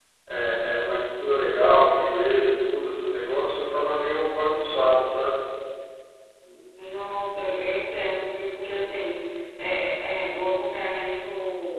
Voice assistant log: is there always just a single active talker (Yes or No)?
Yes